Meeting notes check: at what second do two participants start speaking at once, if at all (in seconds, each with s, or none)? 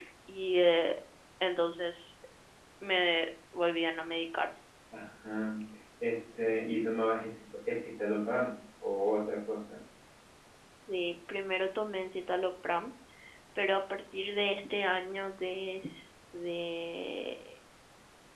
none